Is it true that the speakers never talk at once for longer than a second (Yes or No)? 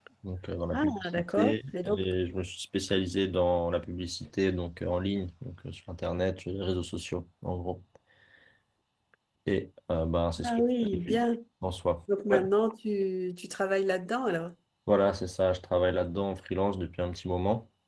No